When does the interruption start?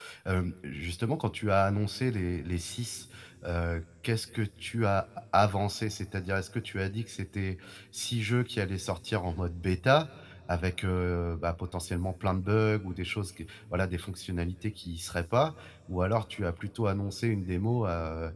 none

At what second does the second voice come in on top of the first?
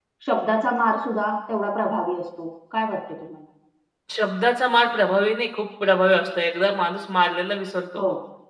none

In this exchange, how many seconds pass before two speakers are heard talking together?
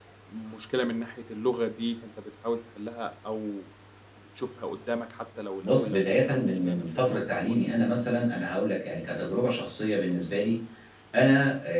5.6 s

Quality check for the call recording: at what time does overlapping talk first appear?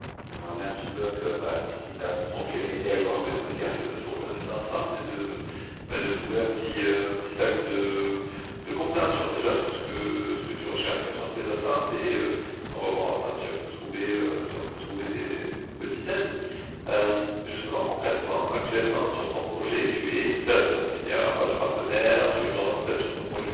2.3 s

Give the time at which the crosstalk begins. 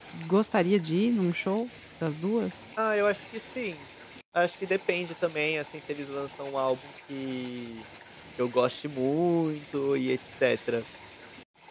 none

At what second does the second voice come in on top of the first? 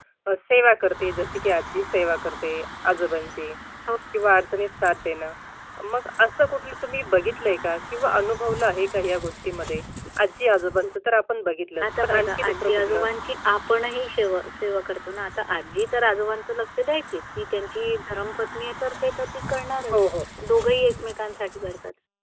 11.8 s

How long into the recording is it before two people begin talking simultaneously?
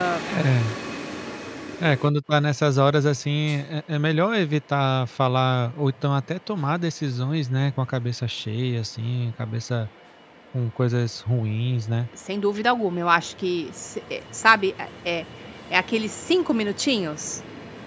none

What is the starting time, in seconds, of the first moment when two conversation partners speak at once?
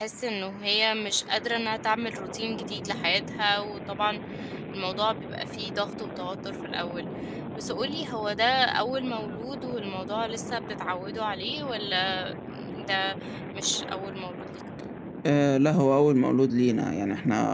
none

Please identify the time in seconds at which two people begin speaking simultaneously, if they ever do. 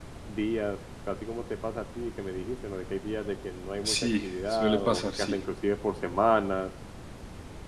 3.8 s

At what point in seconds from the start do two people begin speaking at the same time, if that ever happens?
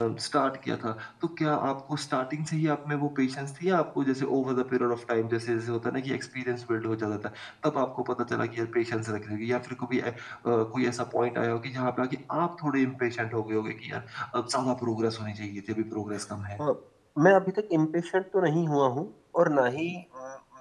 none

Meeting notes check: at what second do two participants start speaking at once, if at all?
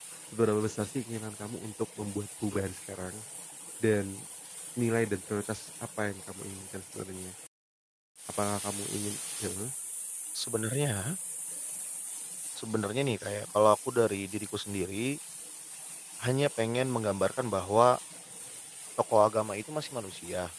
none

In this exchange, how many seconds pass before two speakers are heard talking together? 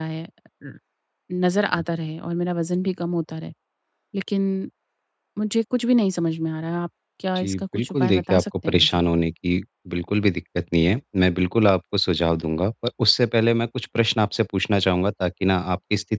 7.3 s

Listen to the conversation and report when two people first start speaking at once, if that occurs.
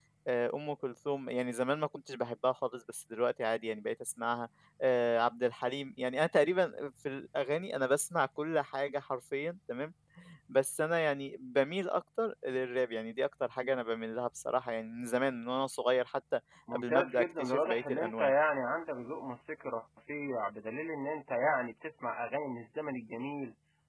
16.7 s

